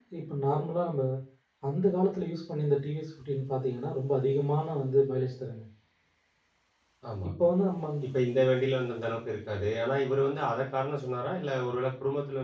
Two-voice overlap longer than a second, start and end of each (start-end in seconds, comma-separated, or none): none